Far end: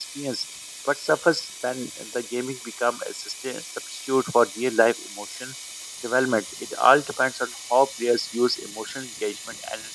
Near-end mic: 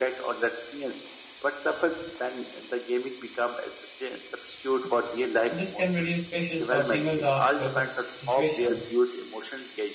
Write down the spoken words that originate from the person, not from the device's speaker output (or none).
So this can reduce spaces for single task focused situations,